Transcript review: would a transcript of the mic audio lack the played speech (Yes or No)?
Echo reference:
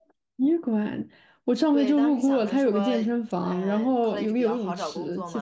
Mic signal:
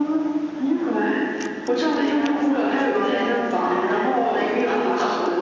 No